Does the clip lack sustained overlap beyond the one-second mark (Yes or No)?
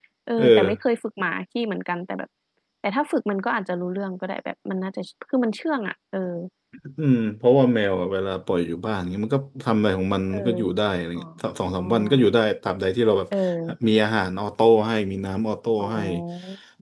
Yes